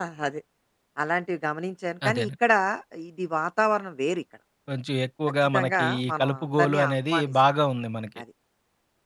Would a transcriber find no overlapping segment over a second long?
No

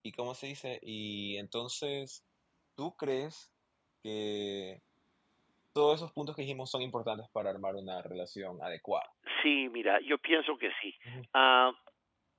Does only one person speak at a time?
Yes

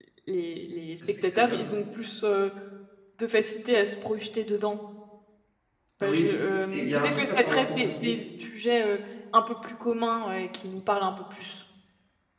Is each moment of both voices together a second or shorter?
No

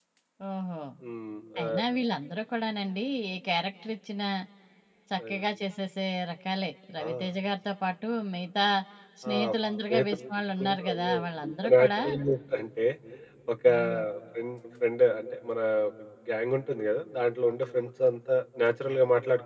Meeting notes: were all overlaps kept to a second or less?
No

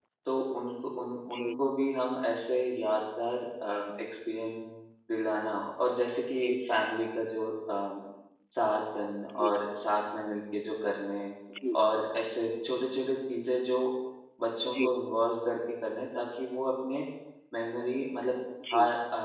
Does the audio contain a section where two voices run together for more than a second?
No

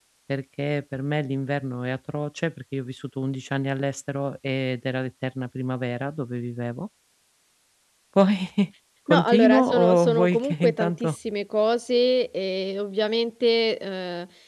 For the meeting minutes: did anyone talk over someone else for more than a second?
Yes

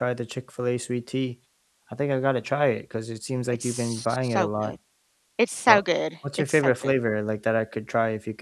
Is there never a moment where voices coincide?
No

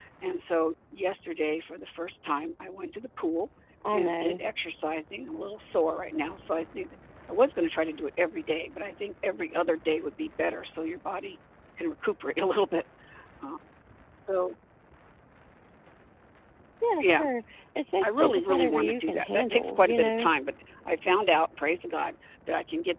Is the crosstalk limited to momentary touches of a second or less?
No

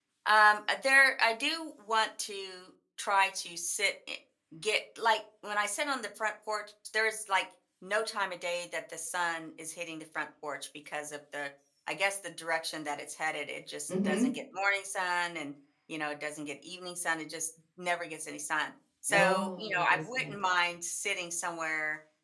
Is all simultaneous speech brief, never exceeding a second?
No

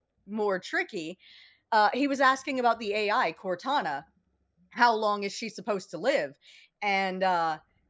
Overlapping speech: No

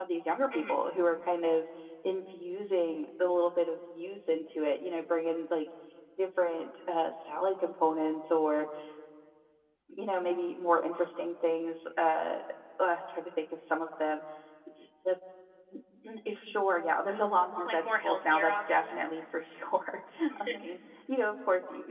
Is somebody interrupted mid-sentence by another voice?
Yes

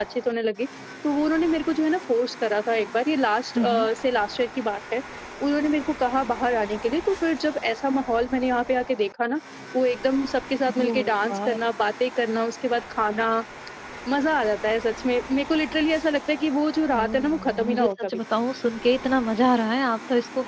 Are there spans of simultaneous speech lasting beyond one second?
Yes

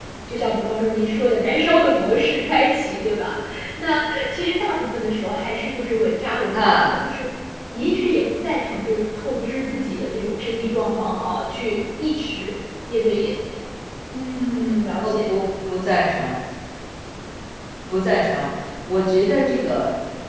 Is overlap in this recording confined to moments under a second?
Yes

